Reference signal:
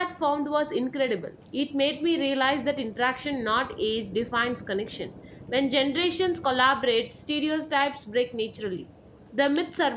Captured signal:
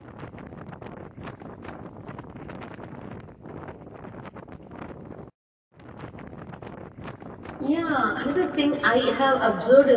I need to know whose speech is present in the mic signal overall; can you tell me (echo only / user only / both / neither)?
user only